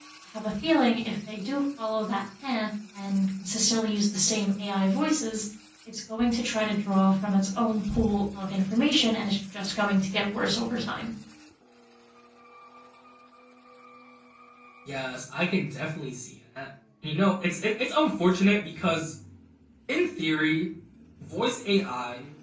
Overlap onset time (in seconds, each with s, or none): none